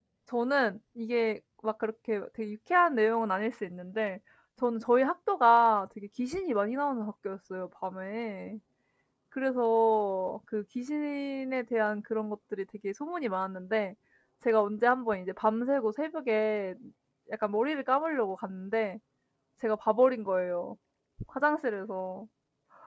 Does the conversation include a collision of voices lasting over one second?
No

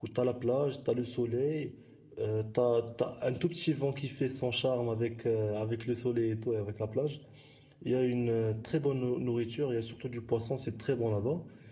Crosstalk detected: No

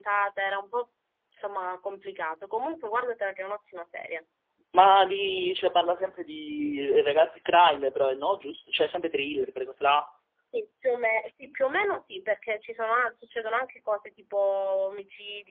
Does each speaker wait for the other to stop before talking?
Yes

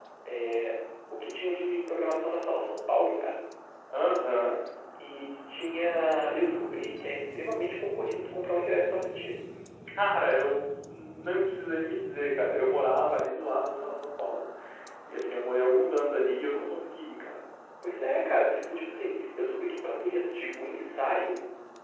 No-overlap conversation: Yes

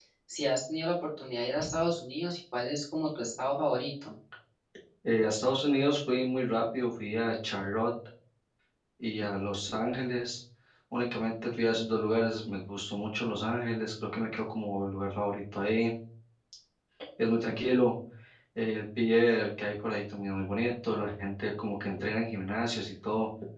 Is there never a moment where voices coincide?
Yes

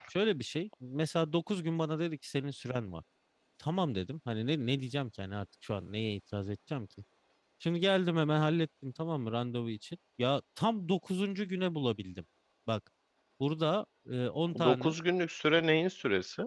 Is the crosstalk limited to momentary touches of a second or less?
Yes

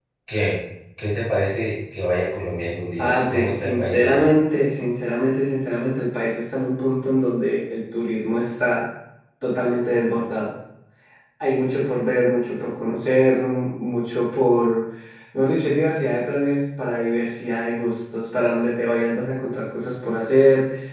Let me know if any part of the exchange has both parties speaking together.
Yes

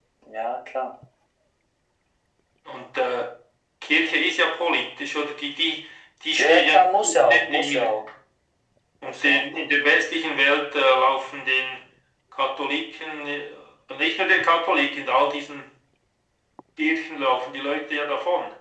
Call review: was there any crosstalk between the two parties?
Yes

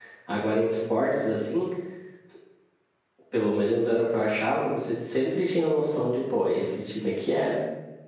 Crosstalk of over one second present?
No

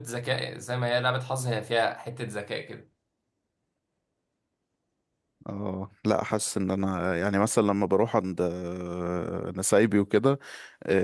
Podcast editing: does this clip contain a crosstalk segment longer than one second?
No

